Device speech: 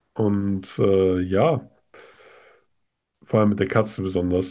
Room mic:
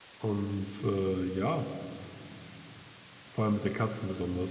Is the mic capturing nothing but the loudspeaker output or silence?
Yes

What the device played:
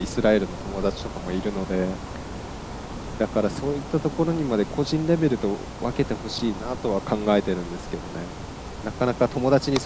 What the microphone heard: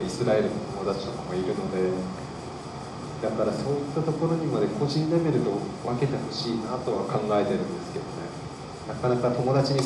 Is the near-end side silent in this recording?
Yes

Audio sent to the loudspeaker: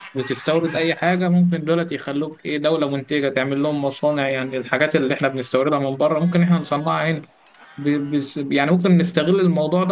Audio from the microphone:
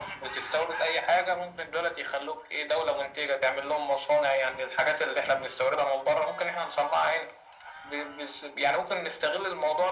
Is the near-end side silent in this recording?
Yes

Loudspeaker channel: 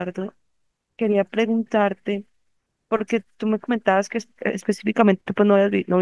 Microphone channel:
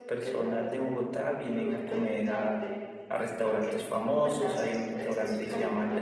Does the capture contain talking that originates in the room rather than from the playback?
Yes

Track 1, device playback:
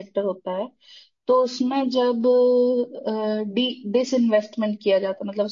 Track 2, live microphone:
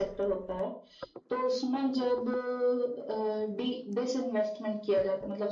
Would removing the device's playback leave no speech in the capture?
Yes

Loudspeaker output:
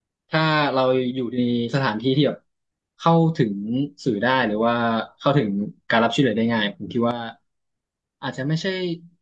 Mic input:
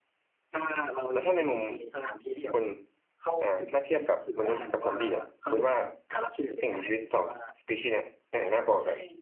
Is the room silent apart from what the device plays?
No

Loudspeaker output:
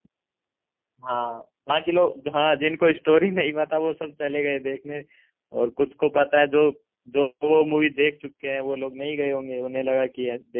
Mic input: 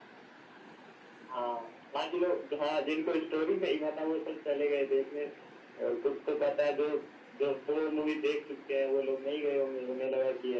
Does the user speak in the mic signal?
No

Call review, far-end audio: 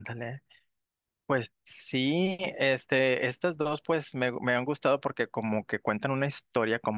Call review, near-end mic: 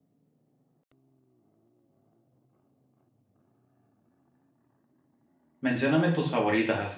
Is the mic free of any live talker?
No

